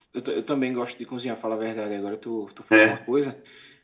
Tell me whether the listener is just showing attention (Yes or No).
Yes